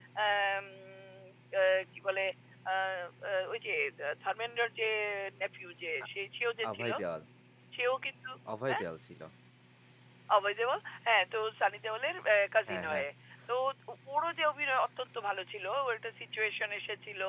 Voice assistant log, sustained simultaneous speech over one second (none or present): none